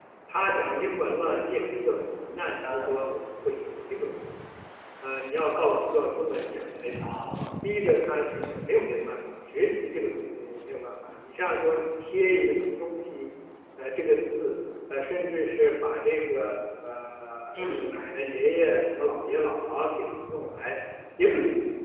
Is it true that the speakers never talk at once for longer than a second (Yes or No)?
Yes